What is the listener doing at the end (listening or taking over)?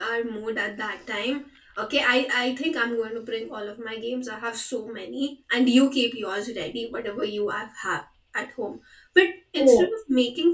listening